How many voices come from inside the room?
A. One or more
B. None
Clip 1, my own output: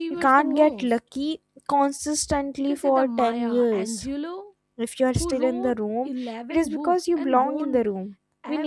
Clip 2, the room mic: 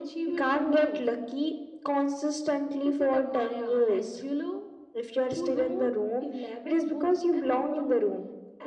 B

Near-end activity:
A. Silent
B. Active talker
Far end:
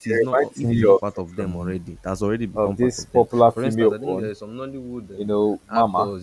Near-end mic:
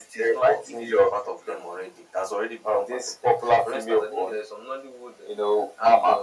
A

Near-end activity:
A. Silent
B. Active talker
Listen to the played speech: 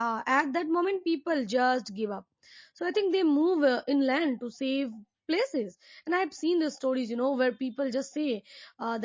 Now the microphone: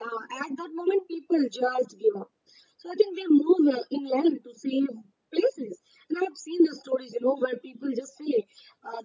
A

